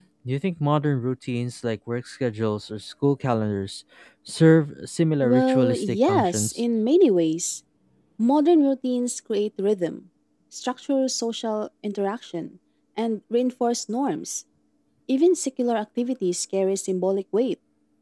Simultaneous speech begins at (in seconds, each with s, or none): 5.2 s